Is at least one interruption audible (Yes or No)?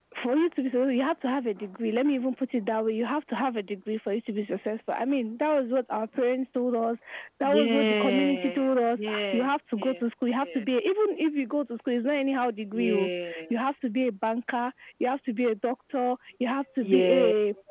Yes